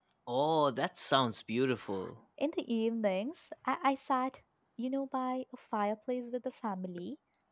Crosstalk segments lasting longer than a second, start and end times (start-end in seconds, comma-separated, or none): none